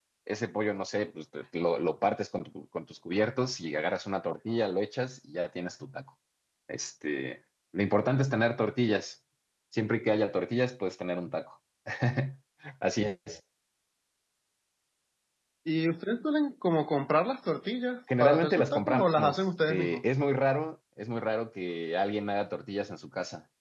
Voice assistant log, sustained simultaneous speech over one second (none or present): present